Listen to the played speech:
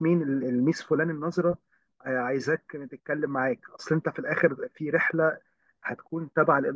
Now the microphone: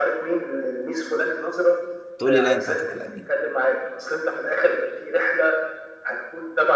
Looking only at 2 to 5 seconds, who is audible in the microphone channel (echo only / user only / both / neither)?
both